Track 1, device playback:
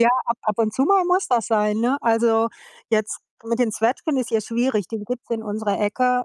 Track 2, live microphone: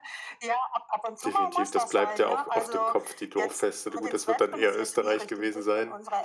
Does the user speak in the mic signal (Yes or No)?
Yes